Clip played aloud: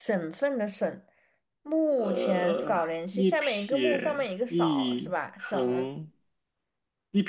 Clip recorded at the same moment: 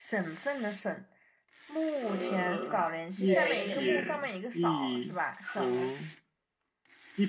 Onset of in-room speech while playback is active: 3.3 s

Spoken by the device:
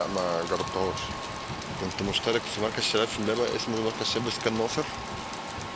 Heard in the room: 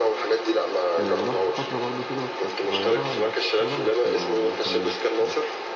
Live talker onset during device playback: 1.0 s

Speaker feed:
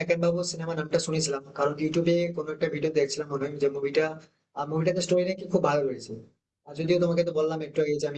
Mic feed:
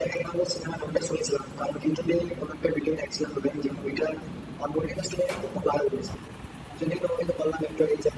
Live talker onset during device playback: none

